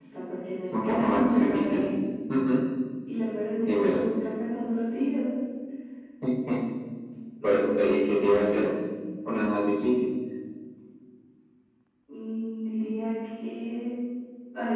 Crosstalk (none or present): present